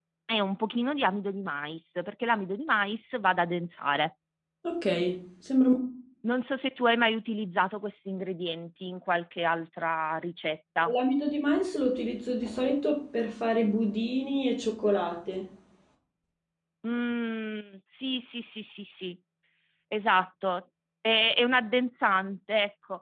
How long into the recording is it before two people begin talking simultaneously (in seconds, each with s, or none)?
none